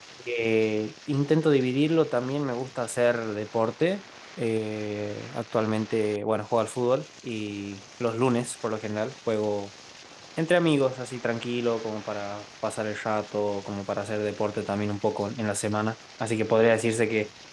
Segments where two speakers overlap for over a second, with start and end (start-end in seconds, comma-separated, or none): none